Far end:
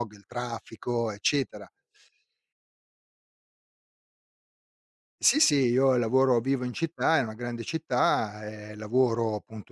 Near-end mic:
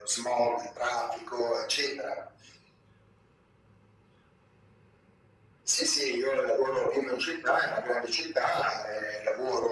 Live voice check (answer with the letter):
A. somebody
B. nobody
B